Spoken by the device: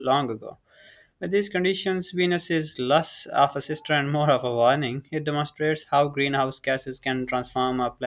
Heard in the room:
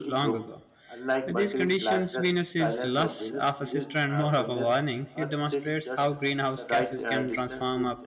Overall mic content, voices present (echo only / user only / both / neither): both